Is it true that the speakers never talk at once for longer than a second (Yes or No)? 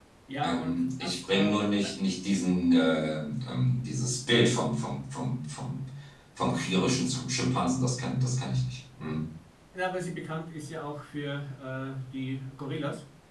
No